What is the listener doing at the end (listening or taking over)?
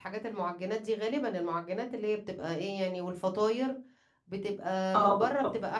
listening